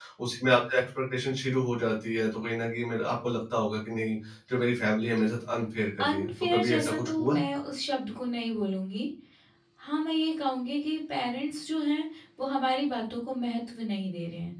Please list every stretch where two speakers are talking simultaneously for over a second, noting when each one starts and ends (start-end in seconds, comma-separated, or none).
6.0-7.4